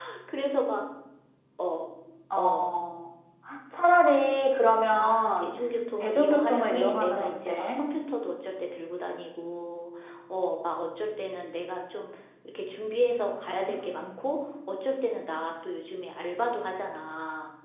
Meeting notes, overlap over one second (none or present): present